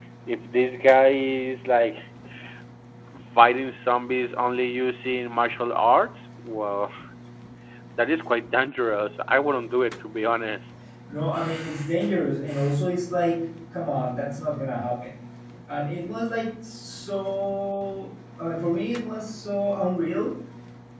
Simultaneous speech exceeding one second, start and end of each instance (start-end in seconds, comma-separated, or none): none